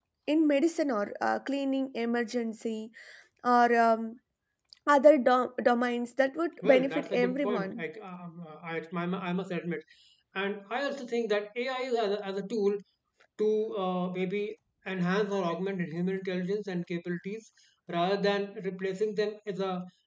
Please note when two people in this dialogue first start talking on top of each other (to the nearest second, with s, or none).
7 s